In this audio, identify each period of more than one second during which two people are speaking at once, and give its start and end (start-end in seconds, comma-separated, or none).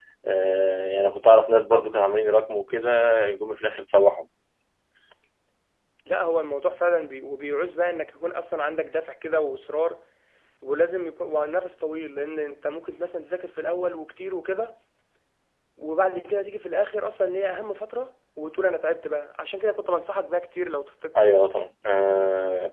none